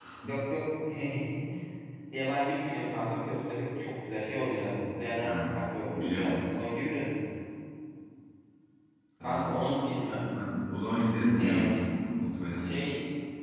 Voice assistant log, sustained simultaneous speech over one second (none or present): none